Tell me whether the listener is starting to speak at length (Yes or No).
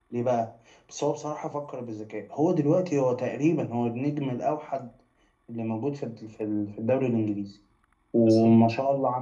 No